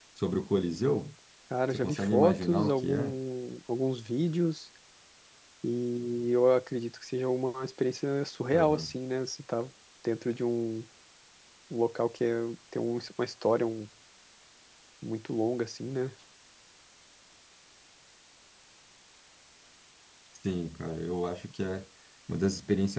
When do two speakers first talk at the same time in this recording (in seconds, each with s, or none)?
1.7 s